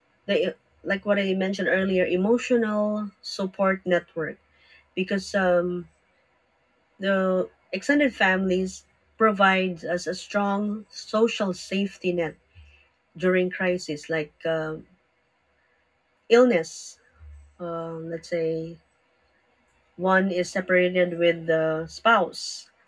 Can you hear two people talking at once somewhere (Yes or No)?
No